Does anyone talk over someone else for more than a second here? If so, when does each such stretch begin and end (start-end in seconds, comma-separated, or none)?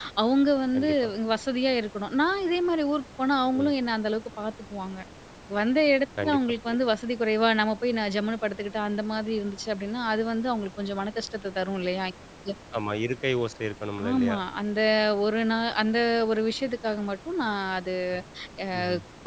none